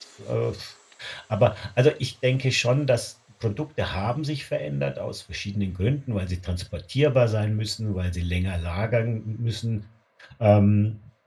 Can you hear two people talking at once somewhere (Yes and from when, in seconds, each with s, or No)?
No